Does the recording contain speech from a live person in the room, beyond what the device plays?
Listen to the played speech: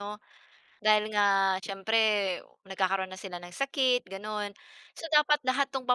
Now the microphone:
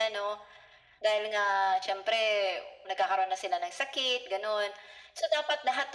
No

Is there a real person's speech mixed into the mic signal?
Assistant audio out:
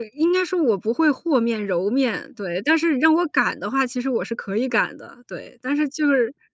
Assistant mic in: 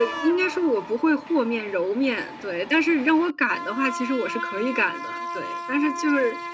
No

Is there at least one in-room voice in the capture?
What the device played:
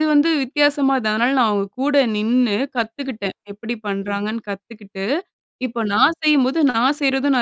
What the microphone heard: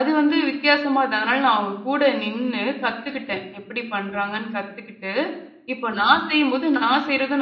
No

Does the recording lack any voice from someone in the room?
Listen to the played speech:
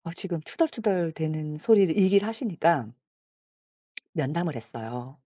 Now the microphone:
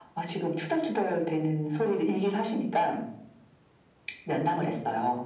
Yes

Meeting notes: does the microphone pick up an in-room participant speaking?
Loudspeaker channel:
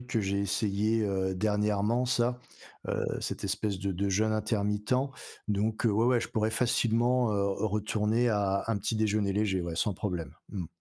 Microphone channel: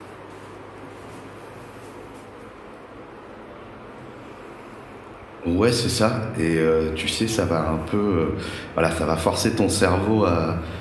Yes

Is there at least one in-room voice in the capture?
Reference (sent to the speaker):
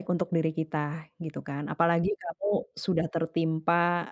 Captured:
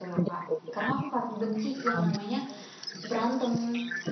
Yes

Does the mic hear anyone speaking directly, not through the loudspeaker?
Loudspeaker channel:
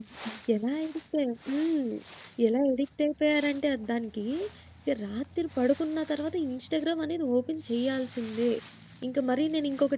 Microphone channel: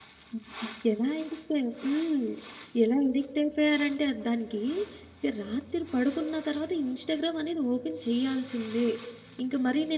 No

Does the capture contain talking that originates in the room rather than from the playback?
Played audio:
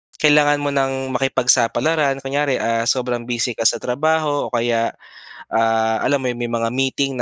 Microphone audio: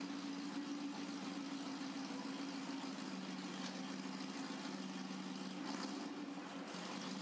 No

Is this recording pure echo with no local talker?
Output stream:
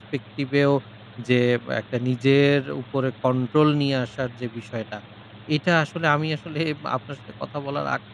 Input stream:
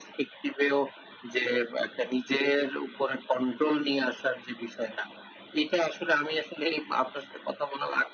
Yes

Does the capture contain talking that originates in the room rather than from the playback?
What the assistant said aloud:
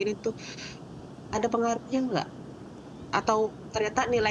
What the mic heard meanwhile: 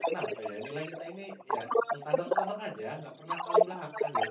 Yes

